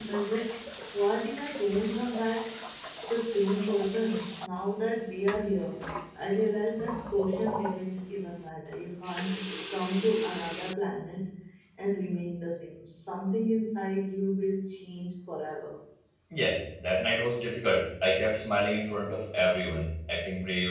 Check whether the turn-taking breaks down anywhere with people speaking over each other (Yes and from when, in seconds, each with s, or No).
No